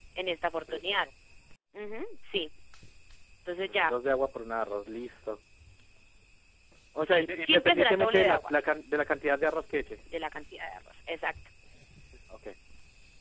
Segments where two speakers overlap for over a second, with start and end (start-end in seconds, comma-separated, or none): 7.0-8.5